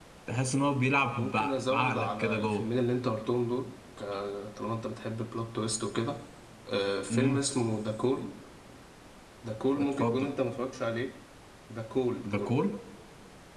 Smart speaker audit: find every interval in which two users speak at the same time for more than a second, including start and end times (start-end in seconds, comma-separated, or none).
1.2-2.6